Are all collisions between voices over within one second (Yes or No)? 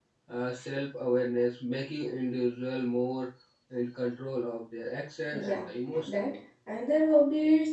Yes